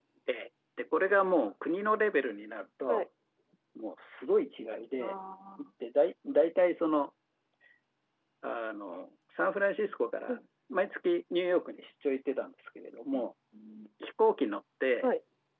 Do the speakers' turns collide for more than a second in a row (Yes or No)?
No